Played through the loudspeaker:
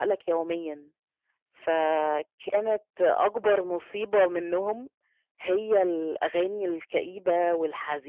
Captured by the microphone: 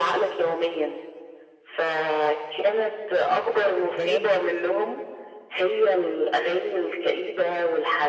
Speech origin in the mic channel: both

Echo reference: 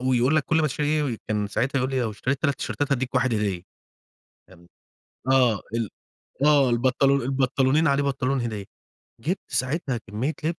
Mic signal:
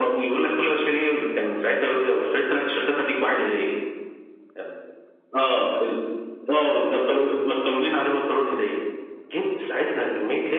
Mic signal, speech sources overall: echo only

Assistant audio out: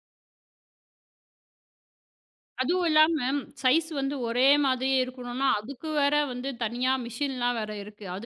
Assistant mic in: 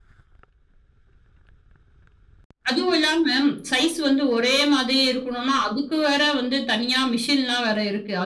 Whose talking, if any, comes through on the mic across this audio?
echo only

